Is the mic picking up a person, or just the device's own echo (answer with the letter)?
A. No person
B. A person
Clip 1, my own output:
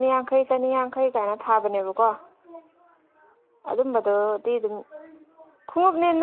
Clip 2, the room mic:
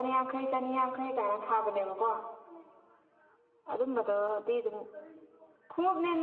A